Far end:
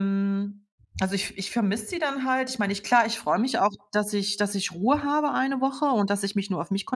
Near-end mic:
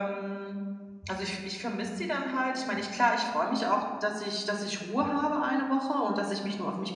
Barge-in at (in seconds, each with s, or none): none